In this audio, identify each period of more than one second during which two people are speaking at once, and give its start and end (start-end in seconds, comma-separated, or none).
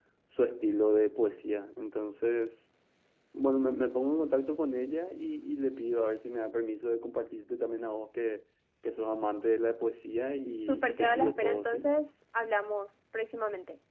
10.6-11.9